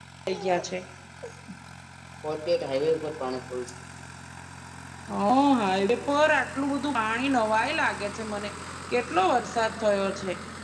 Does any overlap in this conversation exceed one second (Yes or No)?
No